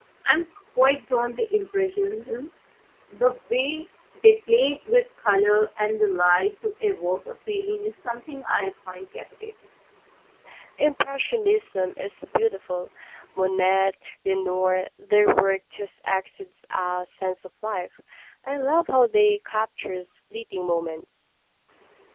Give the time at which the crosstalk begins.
none

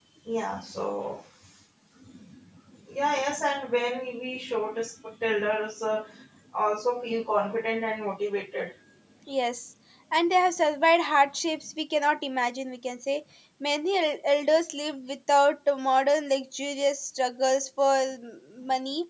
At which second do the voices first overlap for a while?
none

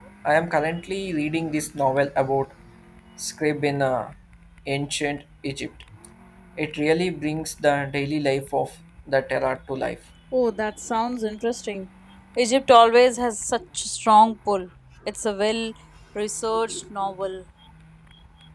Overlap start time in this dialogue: none

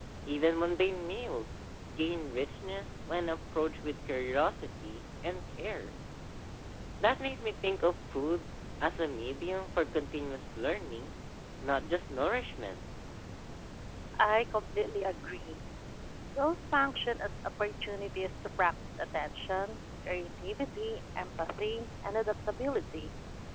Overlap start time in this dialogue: none

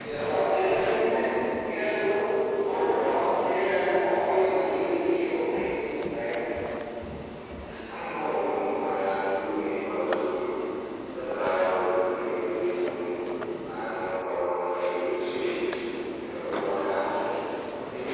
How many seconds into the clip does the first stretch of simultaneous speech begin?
none

